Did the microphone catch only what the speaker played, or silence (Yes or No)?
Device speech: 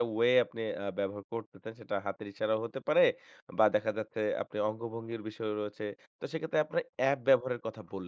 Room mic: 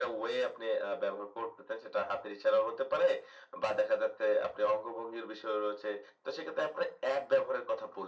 Yes